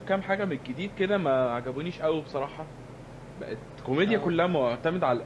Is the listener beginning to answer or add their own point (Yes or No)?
No